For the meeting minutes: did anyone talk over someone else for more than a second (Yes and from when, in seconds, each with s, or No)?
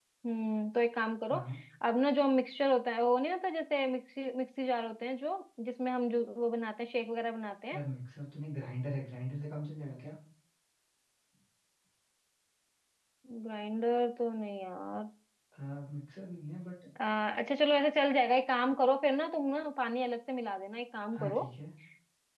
No